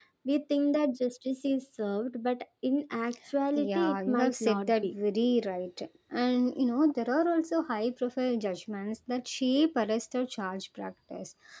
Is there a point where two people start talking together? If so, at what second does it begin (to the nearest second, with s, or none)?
4 s